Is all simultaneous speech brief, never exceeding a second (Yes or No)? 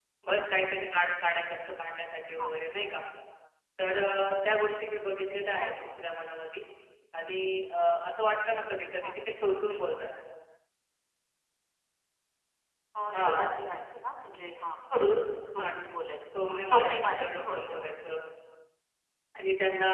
No